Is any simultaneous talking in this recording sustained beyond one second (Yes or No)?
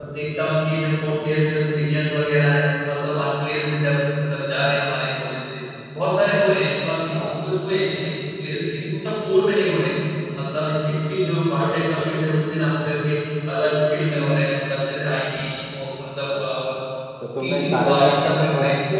Yes